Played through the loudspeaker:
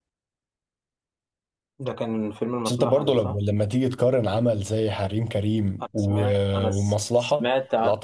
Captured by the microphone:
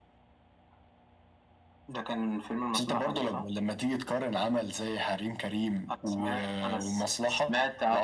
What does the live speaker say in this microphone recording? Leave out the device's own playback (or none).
none